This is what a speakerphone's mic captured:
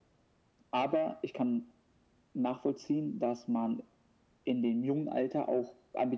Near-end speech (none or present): none